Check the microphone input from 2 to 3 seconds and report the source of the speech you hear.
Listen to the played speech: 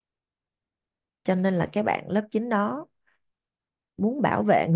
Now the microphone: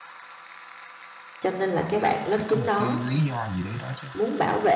both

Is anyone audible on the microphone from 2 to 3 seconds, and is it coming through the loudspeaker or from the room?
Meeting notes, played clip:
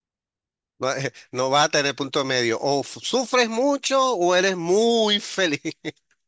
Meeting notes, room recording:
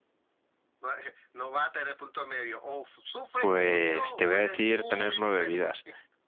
echo only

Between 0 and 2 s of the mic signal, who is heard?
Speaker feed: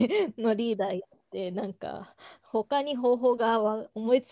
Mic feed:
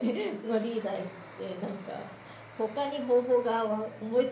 echo only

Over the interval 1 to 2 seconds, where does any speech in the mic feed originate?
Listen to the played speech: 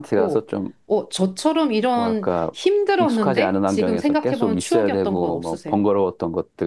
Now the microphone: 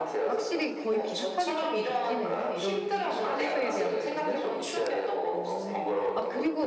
both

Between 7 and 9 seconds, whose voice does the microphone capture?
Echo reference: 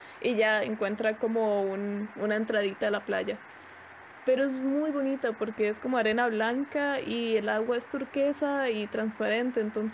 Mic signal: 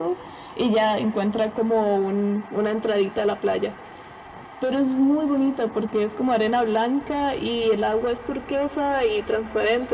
echo only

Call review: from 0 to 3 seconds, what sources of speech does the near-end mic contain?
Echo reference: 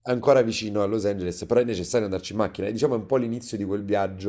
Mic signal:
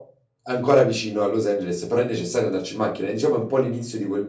echo only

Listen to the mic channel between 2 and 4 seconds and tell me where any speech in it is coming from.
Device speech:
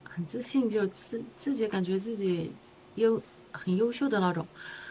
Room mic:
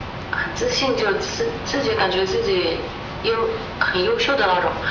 echo only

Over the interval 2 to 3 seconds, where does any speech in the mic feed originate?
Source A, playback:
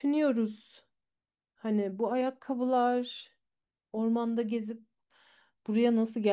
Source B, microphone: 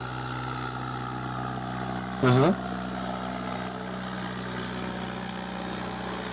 user only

